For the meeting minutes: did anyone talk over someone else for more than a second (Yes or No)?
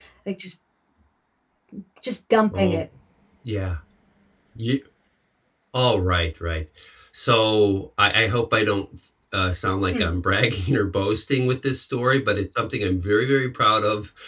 No